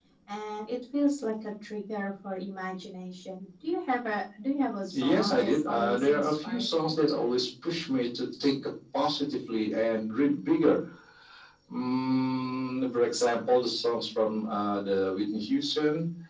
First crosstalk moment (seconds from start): 5 s

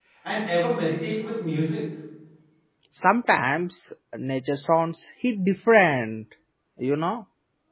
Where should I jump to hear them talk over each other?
none

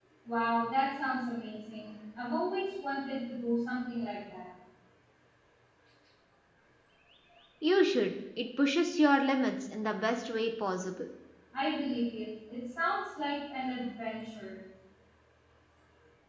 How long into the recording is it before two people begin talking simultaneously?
none

